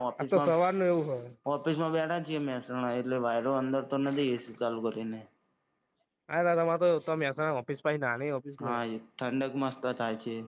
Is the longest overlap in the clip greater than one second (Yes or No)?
No